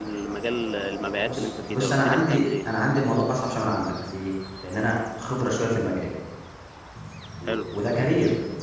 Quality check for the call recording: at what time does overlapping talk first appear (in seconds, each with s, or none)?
1.3 s